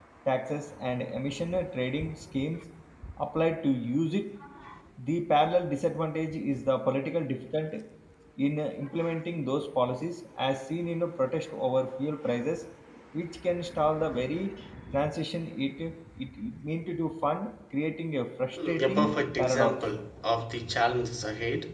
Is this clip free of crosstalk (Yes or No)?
No